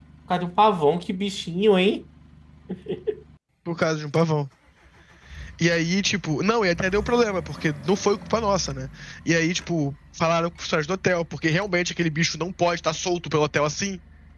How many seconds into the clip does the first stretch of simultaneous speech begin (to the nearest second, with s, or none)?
none